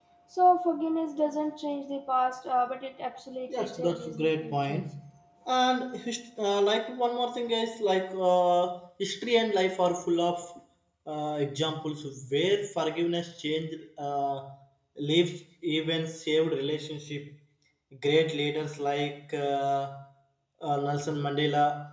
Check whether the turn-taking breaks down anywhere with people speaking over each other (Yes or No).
Yes